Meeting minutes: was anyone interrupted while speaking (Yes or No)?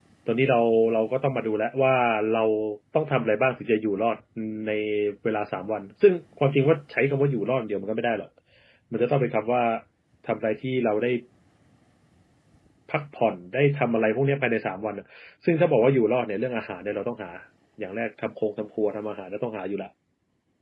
No